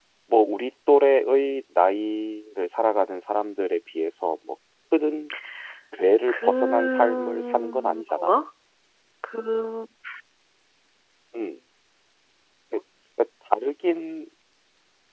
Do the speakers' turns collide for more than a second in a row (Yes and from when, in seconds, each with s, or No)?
Yes, from 6.3 s